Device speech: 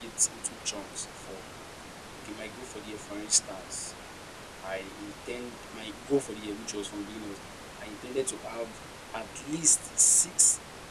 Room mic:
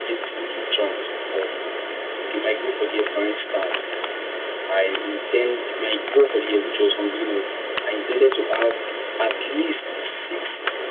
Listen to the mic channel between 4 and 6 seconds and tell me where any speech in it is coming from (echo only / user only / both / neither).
echo only